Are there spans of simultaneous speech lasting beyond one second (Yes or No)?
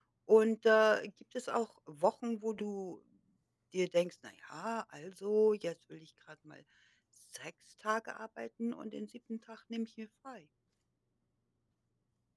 No